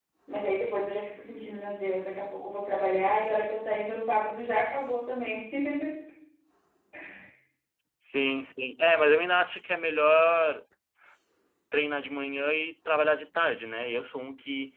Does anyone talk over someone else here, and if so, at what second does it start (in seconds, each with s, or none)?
none